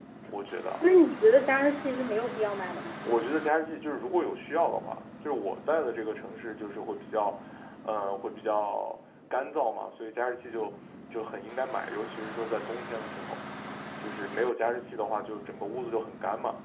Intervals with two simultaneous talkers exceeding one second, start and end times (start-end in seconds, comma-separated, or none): none